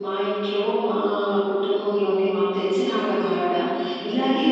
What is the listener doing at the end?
listening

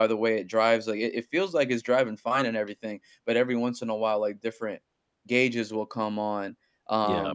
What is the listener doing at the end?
listening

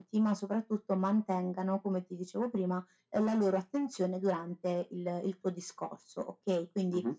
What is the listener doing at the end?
listening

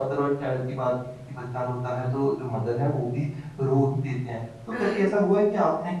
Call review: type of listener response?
listening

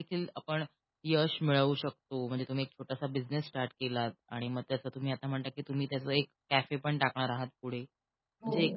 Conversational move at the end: listening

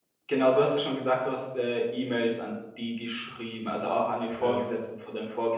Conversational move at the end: listening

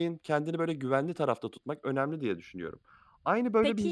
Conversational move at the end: taking over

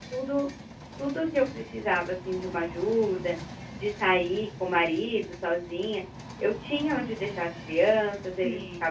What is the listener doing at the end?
listening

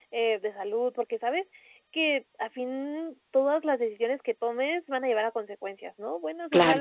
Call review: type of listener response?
listening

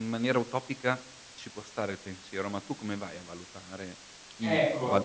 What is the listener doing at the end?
taking over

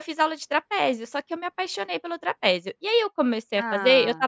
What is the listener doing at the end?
listening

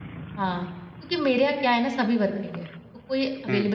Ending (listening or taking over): listening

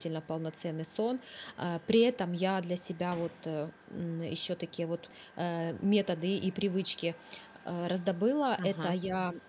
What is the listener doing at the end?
listening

